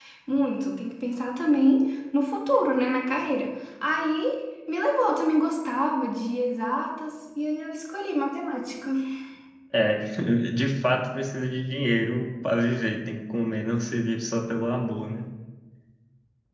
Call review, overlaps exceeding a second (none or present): none